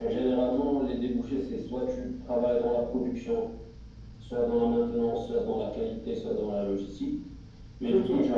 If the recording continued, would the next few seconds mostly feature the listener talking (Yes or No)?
No